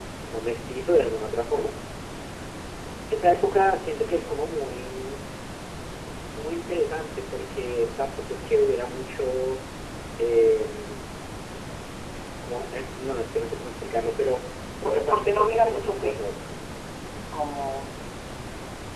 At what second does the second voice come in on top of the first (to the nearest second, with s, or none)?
15 s